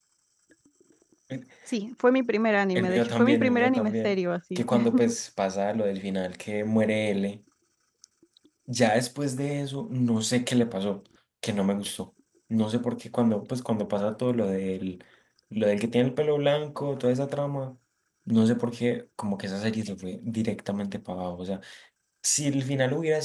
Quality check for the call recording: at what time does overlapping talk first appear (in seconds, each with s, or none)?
2.8 s